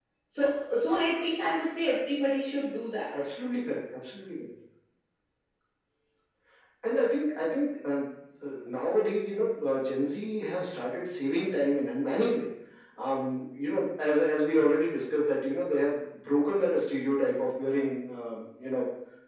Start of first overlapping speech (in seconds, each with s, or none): none